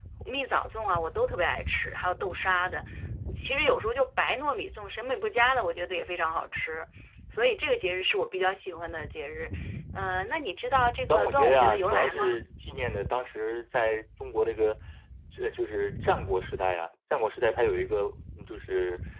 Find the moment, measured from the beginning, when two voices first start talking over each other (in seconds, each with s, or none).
11.1 s